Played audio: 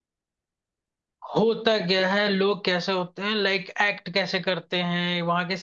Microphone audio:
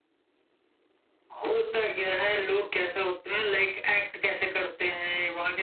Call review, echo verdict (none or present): present